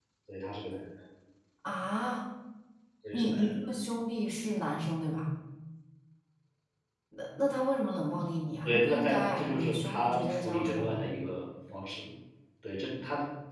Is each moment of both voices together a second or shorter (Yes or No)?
No